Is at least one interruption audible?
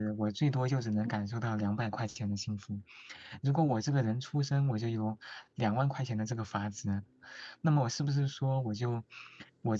No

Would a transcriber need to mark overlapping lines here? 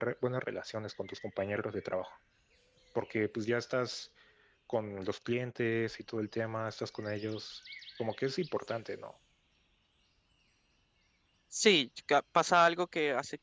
No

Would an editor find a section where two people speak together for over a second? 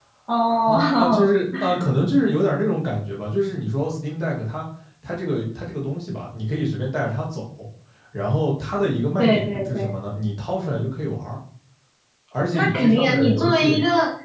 Yes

